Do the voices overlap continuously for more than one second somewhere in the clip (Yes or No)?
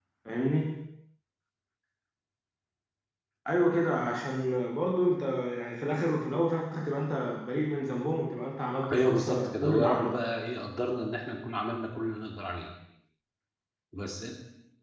Yes